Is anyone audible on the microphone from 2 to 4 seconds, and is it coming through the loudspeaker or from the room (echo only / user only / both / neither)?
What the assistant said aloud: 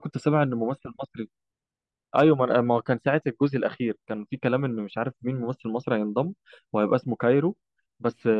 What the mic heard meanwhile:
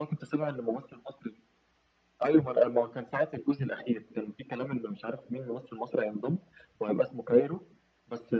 echo only